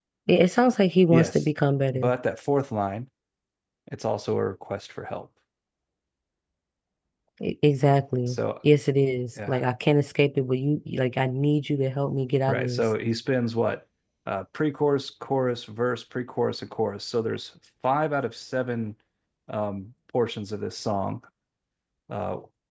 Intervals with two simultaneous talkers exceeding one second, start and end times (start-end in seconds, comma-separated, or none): none